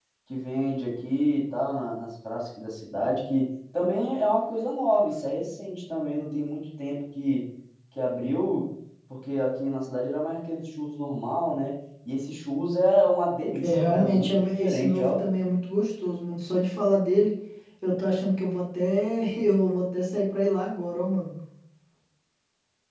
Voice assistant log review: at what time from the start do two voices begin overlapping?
14 s

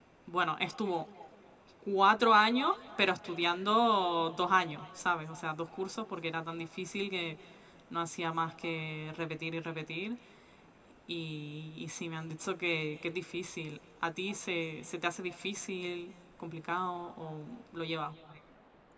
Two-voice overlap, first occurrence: none

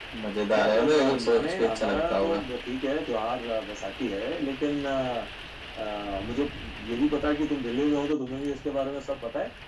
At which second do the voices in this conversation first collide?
1 s

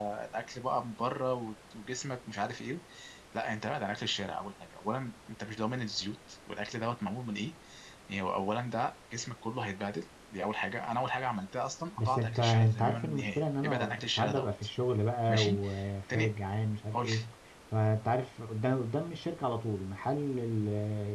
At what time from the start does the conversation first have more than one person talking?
12 s

